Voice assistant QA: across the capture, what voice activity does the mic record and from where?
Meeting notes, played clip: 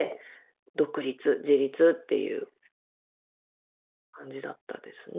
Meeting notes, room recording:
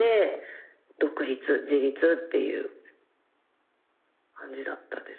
echo only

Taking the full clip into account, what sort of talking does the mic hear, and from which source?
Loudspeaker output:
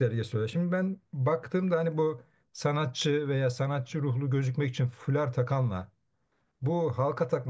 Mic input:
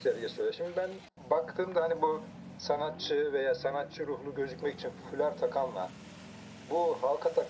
echo only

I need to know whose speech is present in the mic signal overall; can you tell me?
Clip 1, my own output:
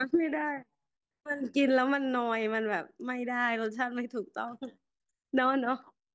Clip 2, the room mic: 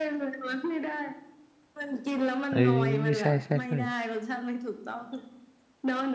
both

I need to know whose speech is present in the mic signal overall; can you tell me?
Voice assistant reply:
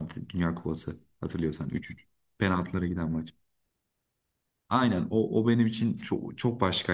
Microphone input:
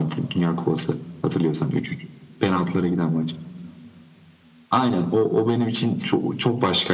echo only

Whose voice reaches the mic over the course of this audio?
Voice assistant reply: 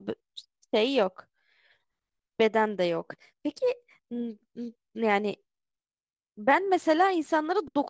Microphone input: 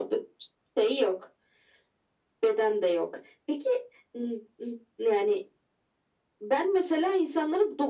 echo only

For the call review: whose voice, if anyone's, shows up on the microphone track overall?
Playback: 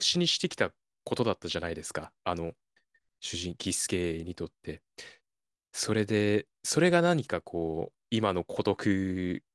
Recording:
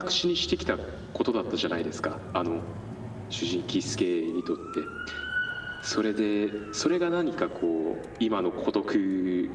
echo only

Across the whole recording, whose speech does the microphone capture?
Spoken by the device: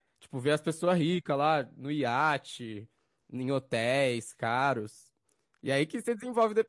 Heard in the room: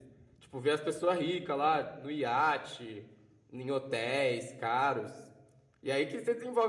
echo only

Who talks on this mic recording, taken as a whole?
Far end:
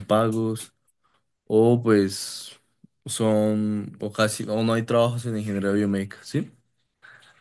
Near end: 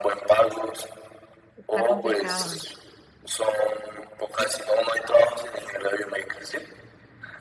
both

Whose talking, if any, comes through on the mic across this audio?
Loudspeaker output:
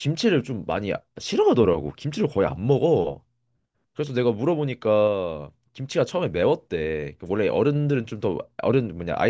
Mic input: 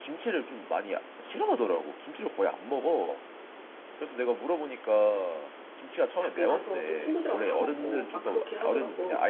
both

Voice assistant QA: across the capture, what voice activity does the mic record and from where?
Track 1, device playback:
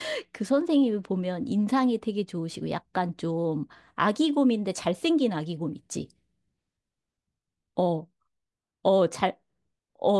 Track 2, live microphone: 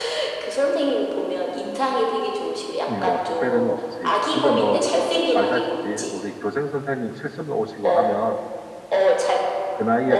both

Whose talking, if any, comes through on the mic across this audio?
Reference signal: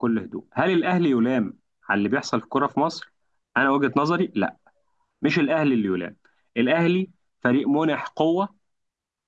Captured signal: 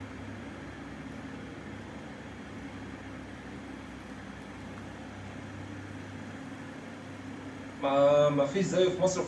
user only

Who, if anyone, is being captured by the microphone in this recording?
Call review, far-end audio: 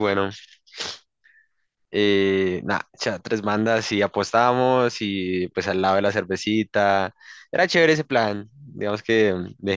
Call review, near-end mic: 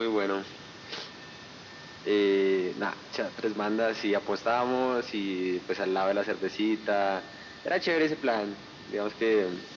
echo only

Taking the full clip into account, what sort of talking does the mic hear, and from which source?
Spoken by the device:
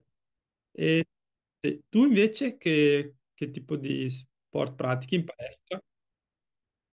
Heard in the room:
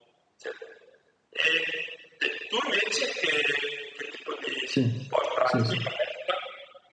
both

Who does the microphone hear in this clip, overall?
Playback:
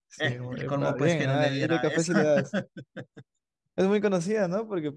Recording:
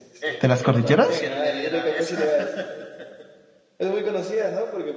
both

